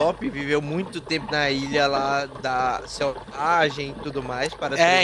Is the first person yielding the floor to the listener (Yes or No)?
Yes